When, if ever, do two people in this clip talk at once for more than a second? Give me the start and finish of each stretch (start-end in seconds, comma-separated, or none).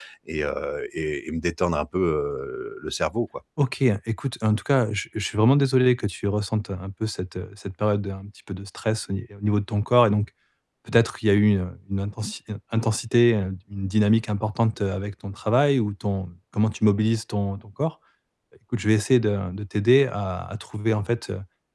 none